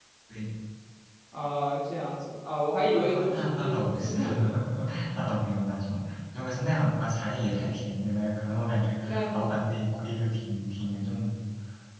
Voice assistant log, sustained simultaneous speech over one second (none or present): present